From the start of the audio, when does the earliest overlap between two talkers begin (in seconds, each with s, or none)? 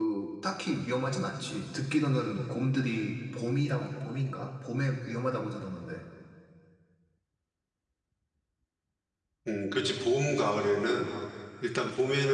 none